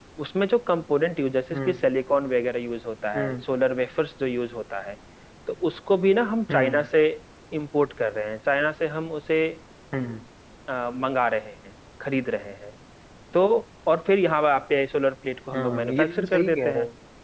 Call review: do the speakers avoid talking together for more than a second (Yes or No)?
No